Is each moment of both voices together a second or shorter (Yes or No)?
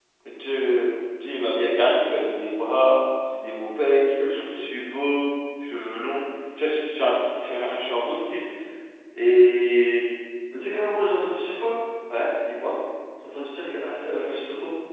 Yes